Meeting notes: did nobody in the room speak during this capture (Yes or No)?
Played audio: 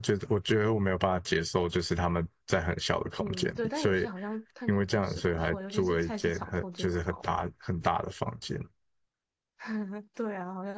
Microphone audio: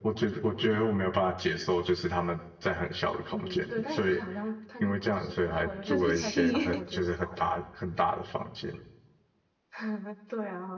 No